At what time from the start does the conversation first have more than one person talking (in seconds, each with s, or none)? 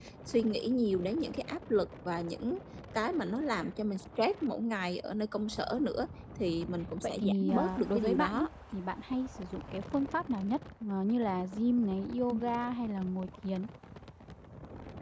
7.0 s